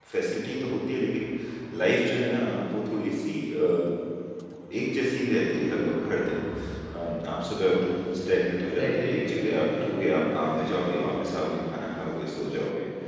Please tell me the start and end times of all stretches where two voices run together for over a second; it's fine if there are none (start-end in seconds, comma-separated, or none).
8.8-10.4